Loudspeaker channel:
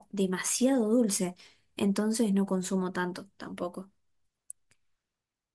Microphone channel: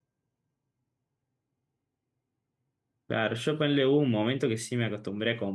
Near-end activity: present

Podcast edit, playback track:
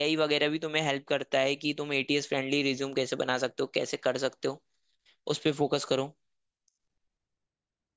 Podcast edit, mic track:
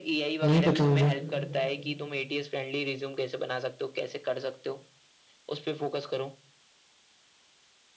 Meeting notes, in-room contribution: present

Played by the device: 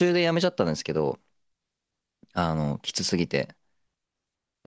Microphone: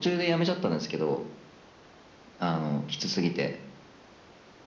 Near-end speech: none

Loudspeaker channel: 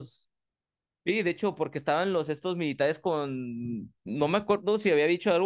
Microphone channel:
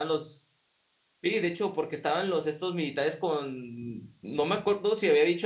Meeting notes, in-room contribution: none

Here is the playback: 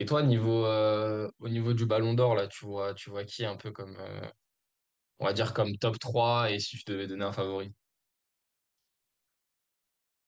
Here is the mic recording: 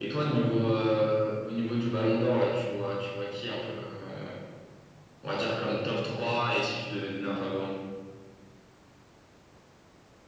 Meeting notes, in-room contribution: none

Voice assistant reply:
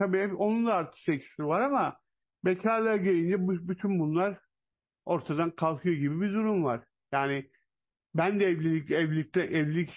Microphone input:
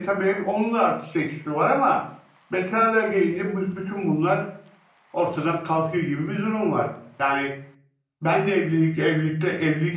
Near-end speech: none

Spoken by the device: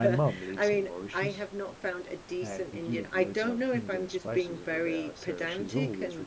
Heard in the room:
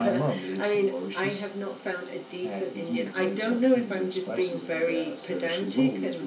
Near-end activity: none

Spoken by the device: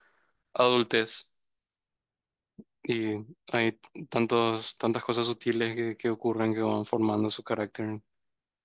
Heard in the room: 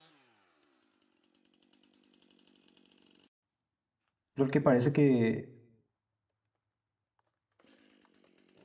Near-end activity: present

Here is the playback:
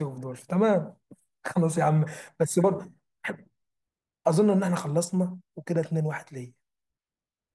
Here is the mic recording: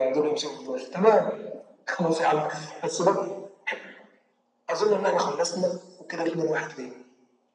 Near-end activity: none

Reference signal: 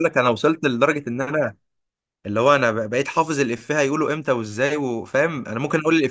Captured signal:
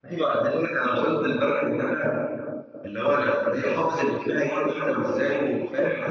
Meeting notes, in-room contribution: none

